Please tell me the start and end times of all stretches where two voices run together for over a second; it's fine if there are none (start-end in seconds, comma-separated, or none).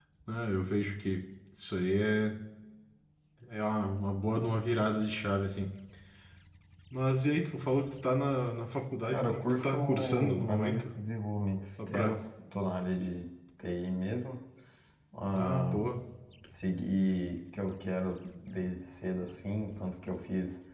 9.1-10.9